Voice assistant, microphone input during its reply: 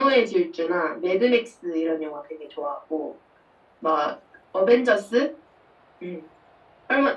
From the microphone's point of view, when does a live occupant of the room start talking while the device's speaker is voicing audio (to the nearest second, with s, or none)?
none